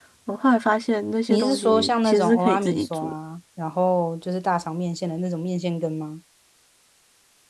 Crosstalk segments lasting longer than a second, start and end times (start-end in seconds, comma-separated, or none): 1.3-3.1